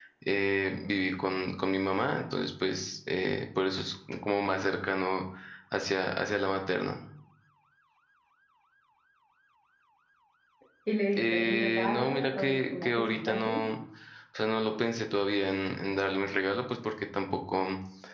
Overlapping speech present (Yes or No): Yes